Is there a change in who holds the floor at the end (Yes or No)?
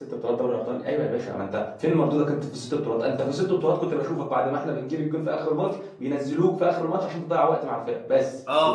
Yes